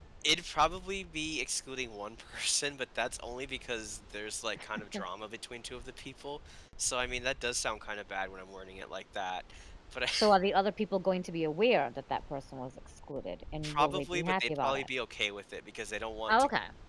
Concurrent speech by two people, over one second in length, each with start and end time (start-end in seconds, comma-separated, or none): 13.6-14.9